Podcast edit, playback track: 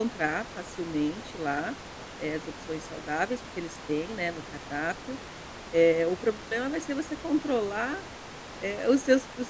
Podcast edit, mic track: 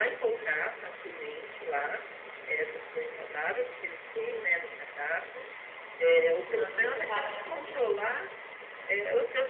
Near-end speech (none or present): present